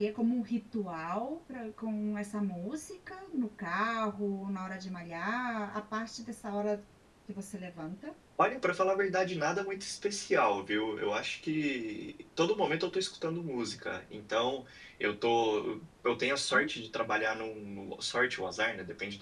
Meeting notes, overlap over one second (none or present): none